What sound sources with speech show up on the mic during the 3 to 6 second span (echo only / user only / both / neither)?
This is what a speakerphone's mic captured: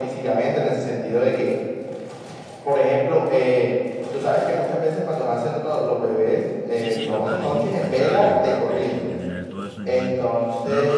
echo only